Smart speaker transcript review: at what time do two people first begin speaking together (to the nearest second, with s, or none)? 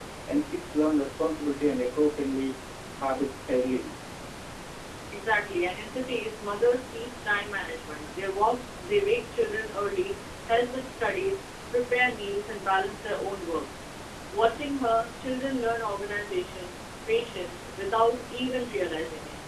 none